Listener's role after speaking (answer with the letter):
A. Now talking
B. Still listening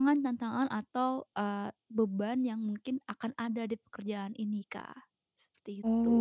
A